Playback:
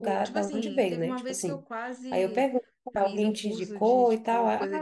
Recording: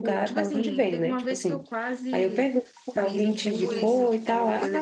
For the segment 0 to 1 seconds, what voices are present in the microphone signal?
echo only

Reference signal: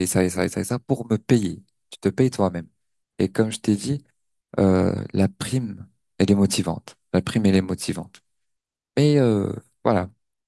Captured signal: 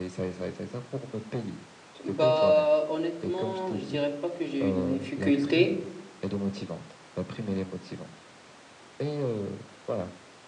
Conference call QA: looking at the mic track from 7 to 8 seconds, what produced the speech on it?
echo only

